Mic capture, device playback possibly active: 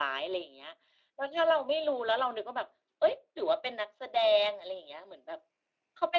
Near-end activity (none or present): none